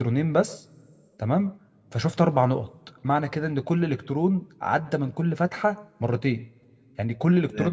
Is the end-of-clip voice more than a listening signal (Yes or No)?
Yes